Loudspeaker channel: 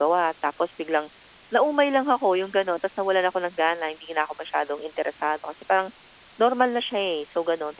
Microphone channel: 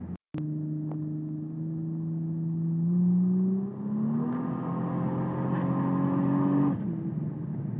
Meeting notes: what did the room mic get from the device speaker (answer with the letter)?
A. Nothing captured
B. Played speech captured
A